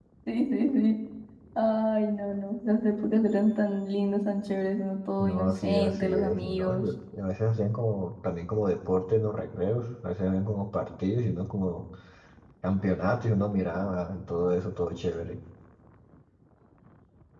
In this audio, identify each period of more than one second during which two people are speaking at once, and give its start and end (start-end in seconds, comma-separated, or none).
5.2-6.9